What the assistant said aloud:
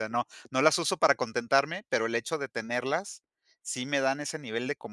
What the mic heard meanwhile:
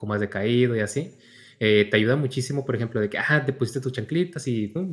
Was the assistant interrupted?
Yes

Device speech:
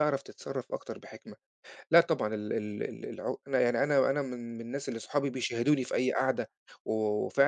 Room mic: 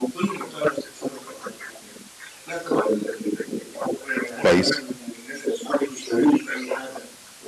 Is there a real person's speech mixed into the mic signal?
Yes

